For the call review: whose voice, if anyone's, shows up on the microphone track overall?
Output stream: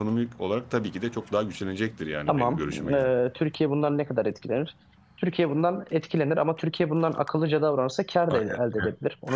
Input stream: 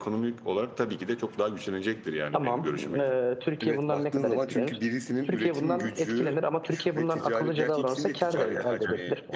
both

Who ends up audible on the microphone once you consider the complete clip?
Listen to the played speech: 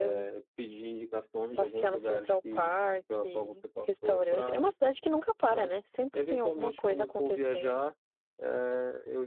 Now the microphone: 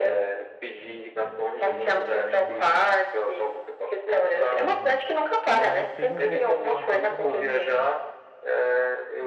both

